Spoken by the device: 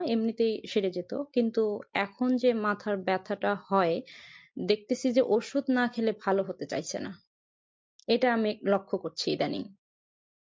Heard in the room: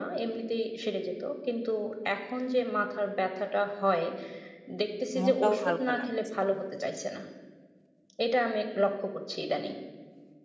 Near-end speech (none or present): present